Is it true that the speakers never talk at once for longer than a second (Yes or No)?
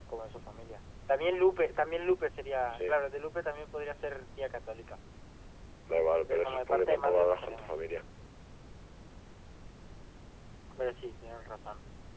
No